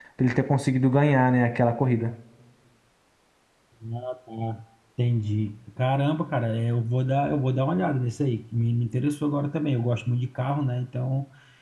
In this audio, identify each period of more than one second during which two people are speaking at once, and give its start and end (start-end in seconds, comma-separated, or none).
none